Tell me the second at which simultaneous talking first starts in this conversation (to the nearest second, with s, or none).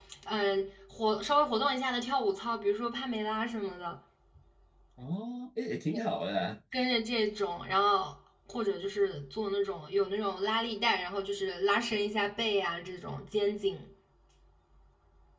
none